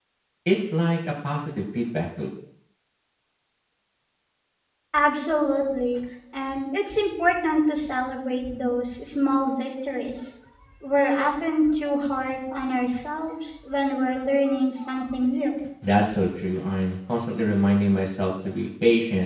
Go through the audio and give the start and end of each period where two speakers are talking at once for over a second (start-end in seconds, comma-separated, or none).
none